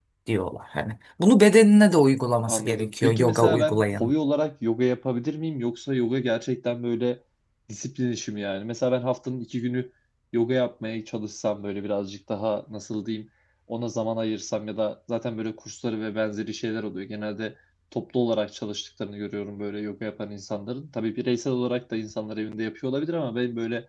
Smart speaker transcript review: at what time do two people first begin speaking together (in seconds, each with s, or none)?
2.5 s